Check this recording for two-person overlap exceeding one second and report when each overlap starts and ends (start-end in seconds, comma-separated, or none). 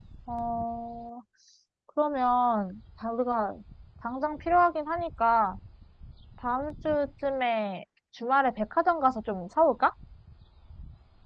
none